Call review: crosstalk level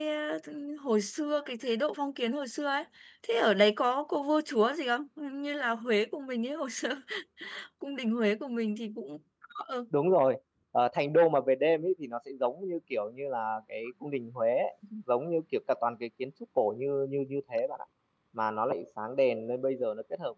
none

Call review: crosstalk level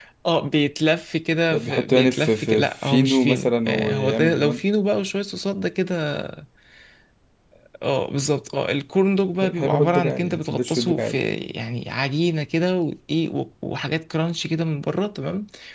present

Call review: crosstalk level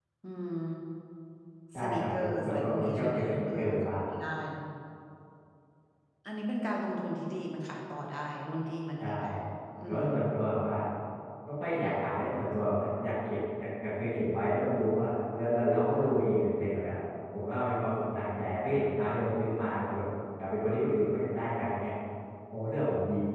present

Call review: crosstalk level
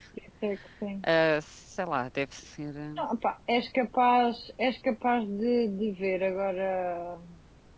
none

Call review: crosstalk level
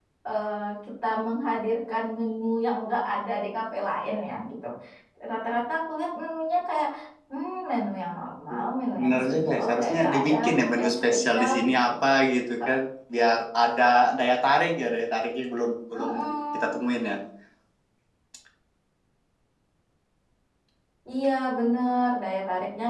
present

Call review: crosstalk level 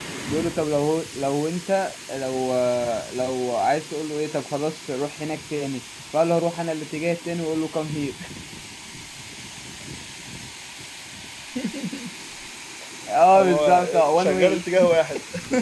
present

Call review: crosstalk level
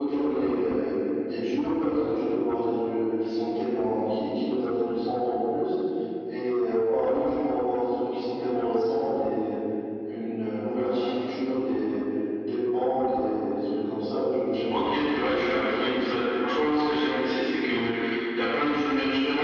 present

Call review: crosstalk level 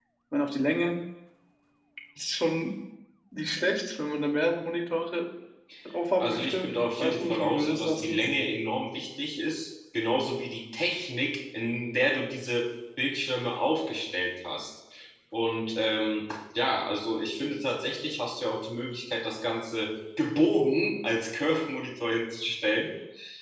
present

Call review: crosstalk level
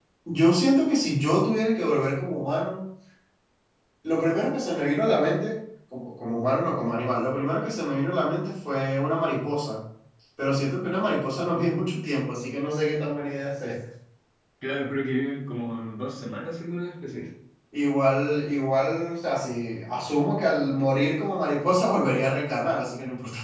none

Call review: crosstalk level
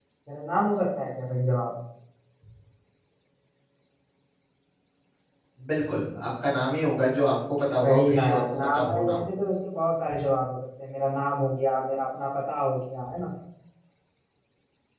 present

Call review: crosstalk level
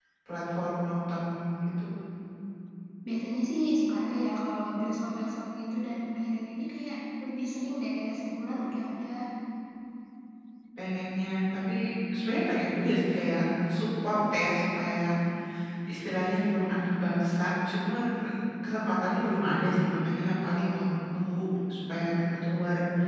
none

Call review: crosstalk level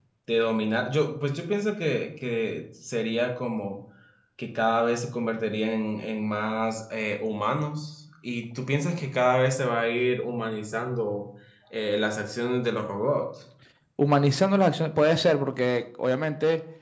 none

